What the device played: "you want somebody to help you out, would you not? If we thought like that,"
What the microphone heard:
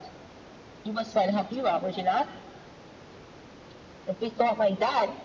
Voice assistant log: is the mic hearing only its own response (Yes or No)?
Yes